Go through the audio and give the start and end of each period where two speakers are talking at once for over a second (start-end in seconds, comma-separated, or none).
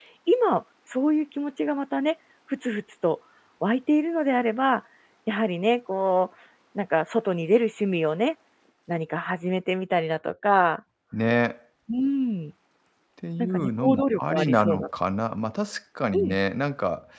13.4-14.8